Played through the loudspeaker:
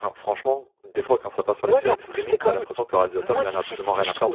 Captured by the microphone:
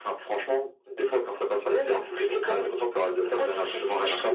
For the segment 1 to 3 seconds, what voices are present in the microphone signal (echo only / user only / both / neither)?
echo only